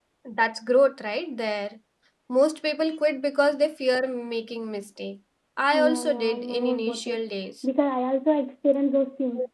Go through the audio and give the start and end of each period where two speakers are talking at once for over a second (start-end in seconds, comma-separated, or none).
5.7-7.2